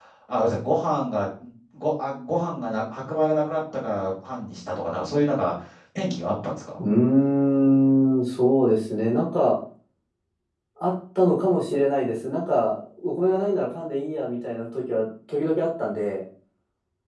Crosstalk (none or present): none